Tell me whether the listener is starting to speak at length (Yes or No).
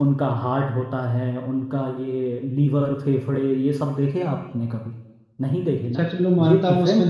Yes